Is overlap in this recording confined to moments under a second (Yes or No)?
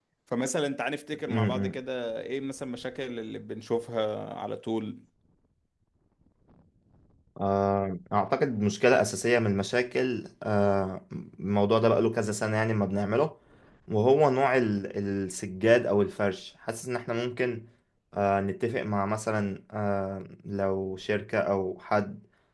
Yes